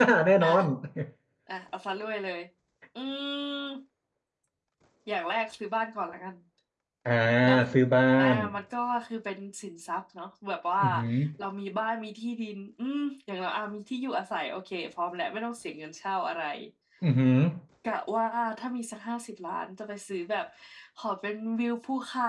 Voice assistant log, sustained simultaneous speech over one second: none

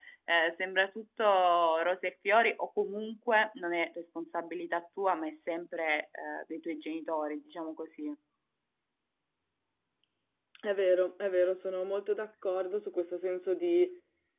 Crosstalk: none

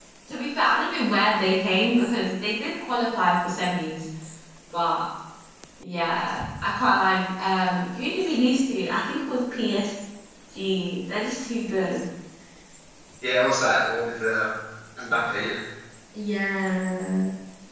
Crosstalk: none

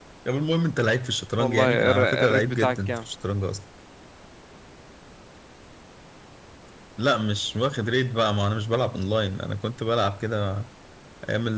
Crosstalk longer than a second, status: present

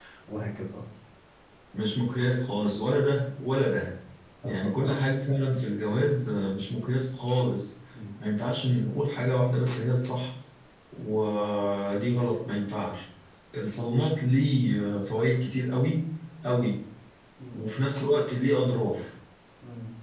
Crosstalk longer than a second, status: none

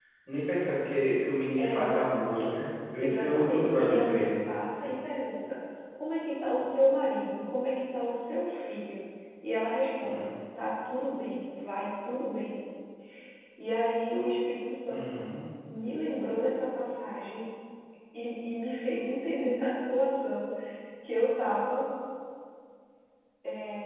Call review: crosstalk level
present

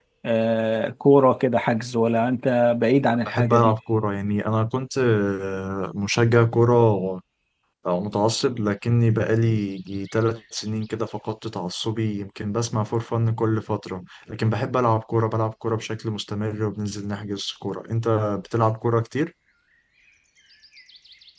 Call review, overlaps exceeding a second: none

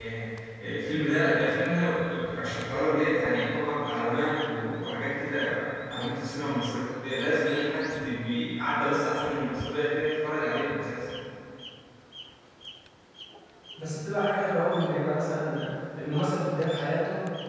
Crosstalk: none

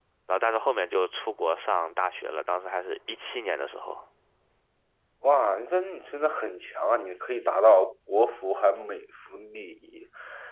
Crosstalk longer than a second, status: none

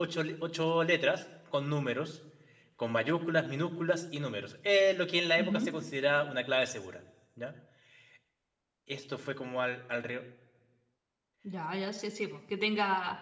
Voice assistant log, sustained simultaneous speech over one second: none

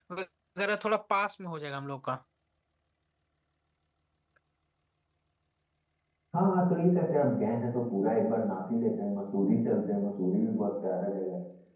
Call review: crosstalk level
none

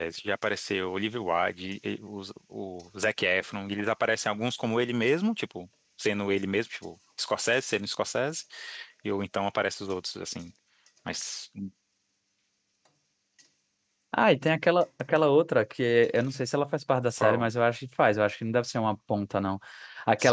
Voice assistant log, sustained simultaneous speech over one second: none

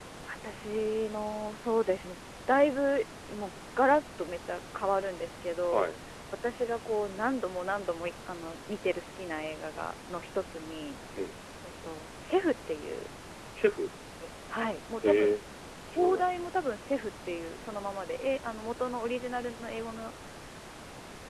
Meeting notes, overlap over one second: none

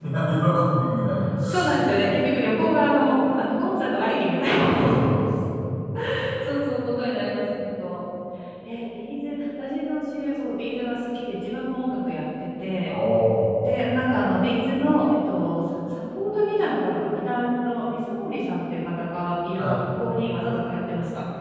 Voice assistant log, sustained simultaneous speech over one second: none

